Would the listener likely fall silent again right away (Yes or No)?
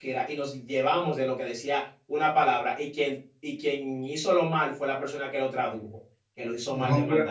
No